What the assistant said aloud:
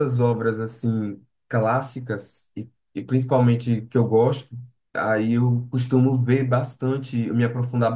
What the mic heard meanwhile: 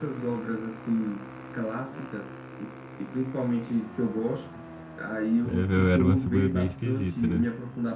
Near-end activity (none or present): present